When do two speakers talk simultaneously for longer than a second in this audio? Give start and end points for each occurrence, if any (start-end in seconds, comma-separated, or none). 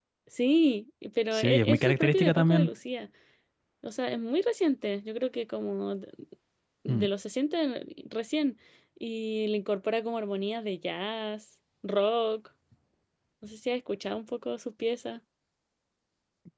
1.3-2.7